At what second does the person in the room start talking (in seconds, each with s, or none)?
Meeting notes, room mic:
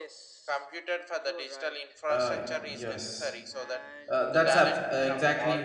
2.1 s